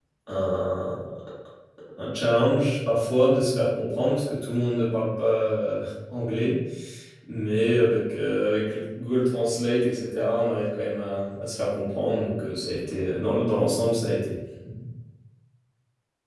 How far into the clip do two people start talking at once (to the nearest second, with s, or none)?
none